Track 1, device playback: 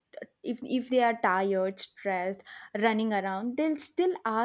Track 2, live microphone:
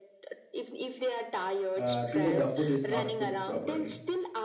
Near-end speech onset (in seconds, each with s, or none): 1.8 s